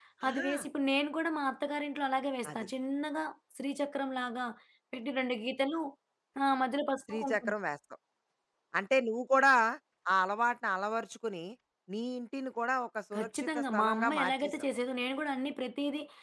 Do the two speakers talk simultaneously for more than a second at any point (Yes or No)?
Yes